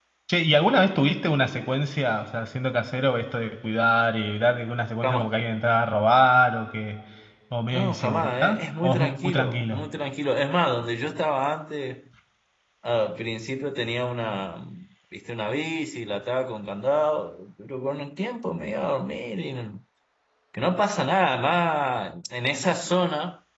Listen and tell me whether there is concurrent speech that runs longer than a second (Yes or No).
Yes